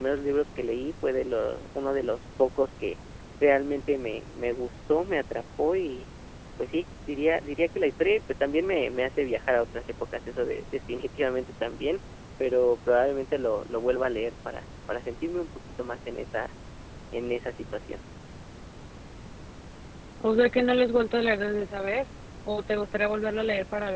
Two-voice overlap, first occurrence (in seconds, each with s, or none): none